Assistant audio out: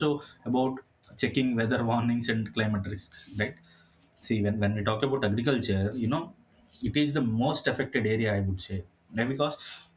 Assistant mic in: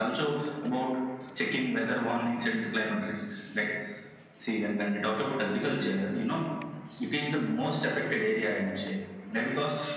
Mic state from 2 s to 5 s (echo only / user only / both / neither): echo only